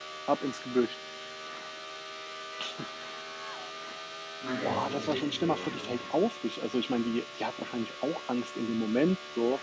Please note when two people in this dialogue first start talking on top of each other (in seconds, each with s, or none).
4.6 s